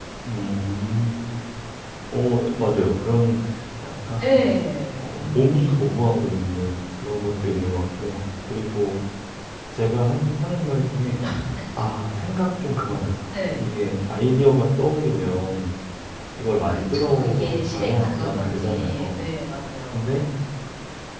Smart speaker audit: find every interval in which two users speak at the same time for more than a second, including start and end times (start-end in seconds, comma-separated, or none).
16.7-19.2